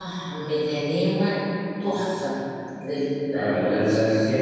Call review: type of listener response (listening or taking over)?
taking over